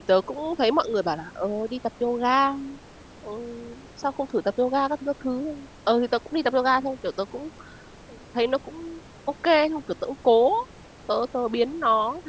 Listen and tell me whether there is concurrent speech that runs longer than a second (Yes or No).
No